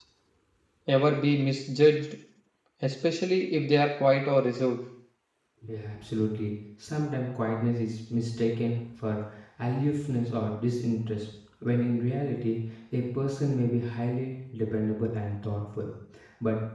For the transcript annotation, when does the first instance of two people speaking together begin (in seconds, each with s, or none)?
none